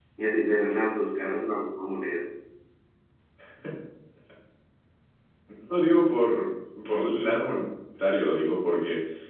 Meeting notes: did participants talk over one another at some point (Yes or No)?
No